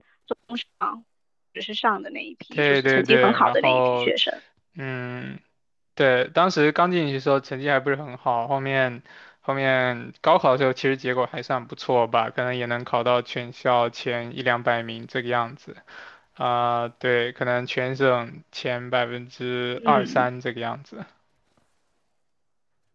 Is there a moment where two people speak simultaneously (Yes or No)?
Yes